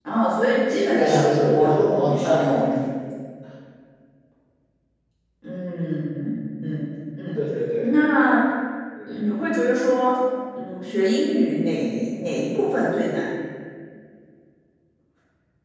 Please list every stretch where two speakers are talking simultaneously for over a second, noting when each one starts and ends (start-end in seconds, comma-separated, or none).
0.7-2.8